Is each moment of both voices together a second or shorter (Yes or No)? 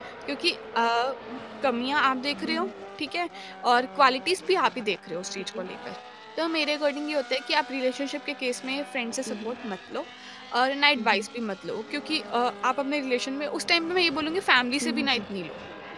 Yes